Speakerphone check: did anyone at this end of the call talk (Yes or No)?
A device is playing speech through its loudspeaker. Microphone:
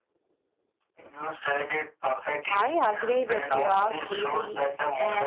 Yes